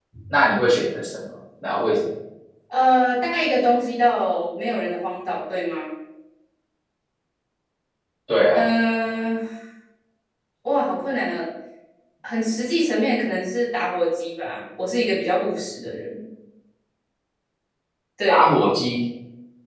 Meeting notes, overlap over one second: none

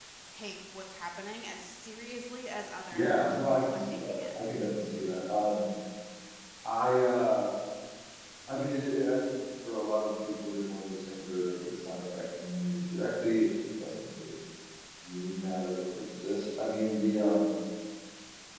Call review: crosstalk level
present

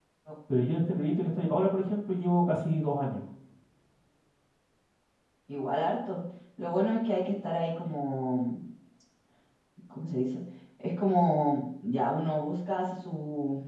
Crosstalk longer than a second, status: none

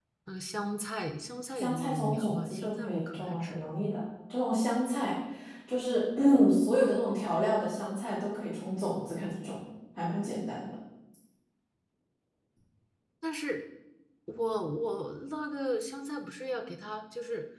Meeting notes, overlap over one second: present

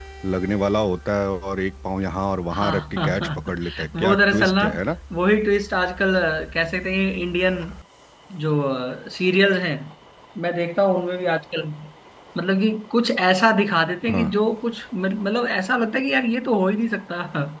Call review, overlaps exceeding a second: present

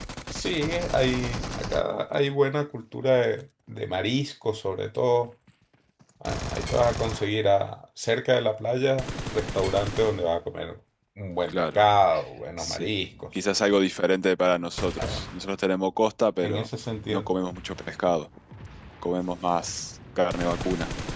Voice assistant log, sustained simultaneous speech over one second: none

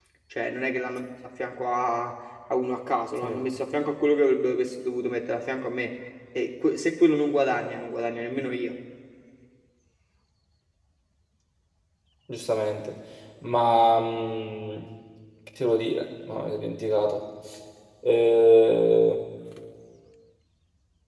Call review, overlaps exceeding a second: none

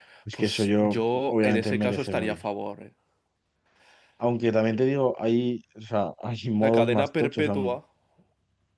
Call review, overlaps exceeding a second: present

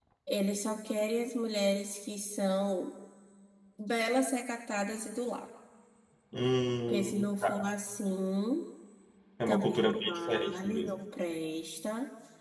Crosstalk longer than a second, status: present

